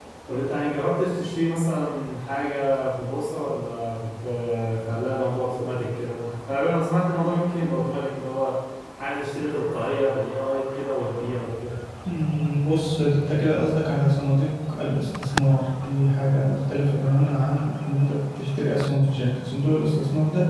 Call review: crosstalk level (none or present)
none